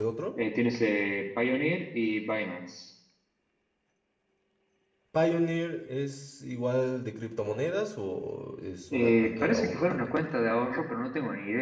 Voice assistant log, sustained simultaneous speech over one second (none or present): present